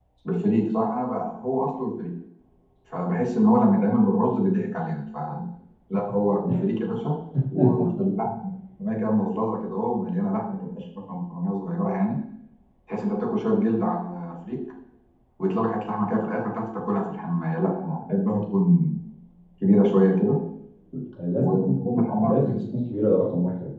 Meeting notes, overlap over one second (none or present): present